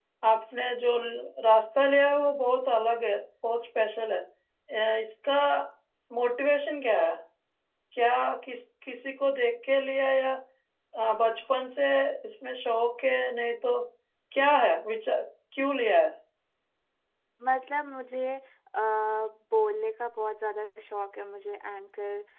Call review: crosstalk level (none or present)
none